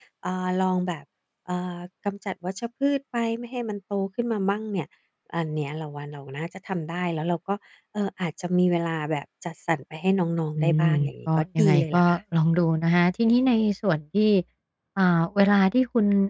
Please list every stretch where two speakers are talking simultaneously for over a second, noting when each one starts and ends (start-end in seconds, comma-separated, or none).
10.6-12.2